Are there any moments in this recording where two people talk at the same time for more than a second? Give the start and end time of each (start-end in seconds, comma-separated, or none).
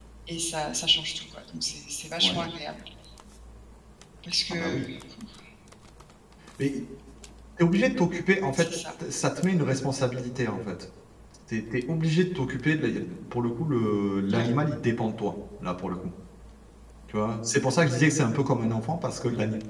none